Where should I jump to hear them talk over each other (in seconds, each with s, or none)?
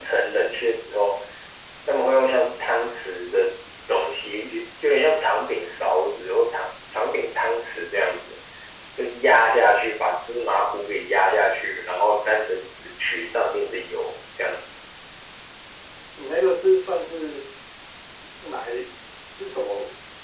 none